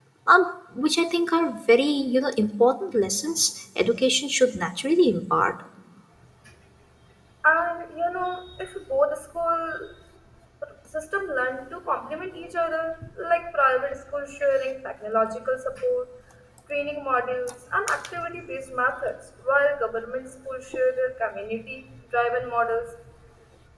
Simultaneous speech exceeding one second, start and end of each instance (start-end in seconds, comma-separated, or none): none